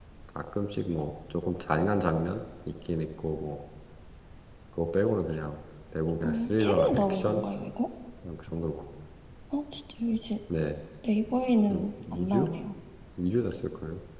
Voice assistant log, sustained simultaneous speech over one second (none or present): present